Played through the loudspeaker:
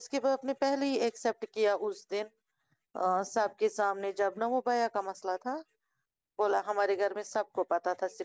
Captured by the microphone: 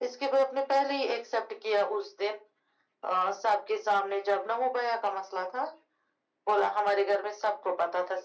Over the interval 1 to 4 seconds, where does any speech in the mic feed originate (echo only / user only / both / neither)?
echo only